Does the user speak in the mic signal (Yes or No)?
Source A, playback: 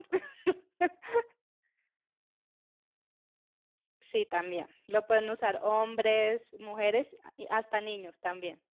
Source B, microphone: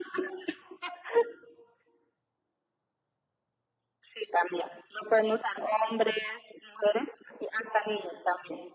No